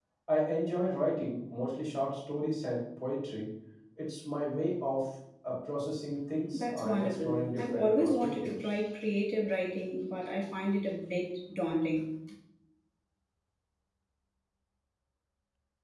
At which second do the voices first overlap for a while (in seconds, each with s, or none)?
6.5 s